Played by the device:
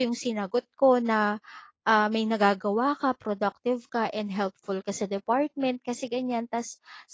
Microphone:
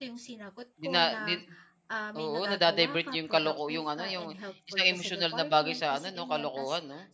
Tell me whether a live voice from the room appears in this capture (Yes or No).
Yes